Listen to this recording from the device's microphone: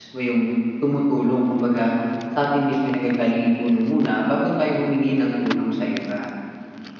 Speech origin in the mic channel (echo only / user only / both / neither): user only